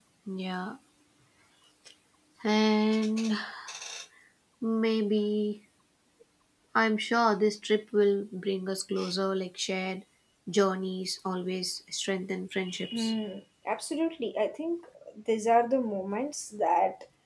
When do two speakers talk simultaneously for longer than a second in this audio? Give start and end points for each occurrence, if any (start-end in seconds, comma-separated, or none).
none